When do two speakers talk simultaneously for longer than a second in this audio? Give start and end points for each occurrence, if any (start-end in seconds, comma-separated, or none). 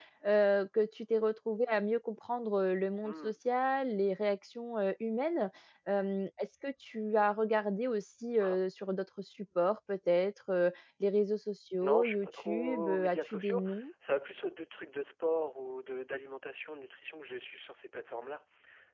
11.8-13.6